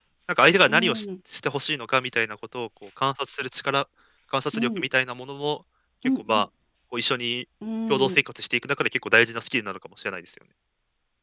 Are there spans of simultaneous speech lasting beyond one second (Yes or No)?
No